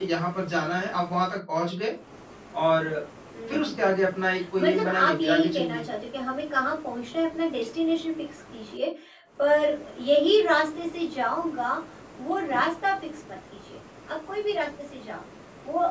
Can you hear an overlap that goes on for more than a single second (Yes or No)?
Yes